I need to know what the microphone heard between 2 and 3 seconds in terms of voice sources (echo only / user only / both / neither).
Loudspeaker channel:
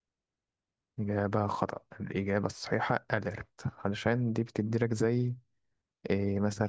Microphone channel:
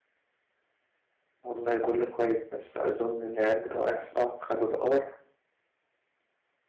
user only